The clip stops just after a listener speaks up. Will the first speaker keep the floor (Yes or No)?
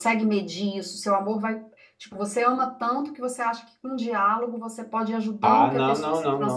No